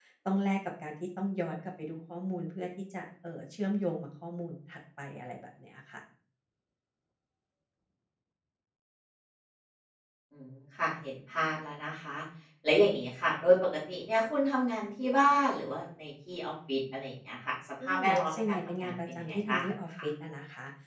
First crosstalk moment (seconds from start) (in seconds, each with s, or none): 17.8 s